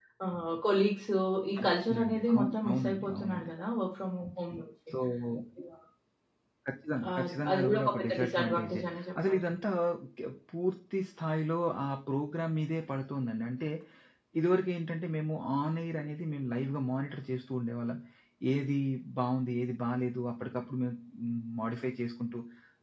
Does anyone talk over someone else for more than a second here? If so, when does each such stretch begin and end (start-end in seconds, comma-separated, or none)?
1.6-3.5, 7.0-8.8